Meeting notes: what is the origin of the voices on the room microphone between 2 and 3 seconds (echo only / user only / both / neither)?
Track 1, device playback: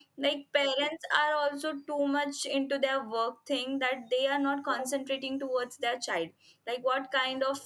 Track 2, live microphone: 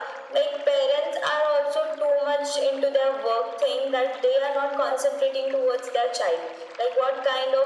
echo only